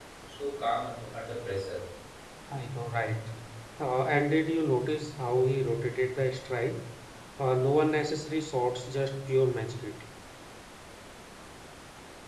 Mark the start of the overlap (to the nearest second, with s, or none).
none